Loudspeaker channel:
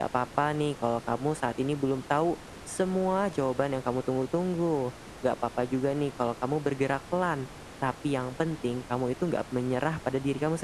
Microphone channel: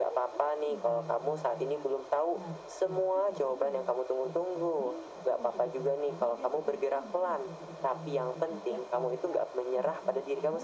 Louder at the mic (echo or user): echo